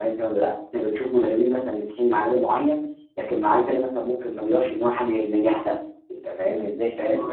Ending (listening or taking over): listening